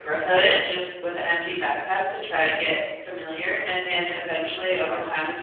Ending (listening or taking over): listening